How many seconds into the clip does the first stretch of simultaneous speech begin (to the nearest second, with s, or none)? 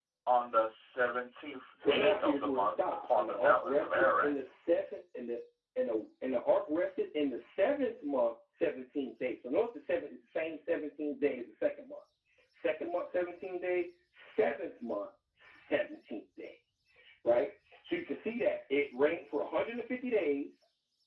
2 s